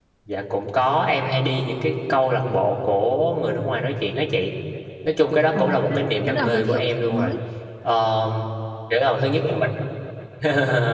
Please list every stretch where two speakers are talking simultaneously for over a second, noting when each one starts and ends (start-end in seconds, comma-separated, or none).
5.5-7.3